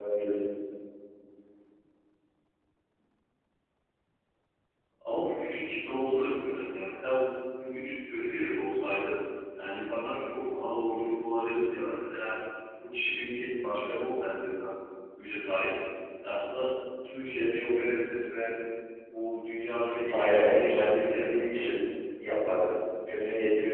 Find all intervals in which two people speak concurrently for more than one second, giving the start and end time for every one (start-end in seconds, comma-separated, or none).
20.1-21.7